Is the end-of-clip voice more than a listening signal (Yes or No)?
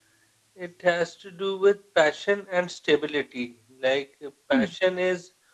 No